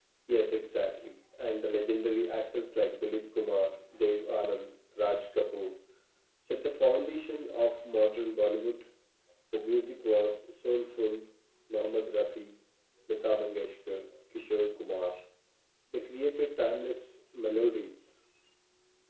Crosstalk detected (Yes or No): No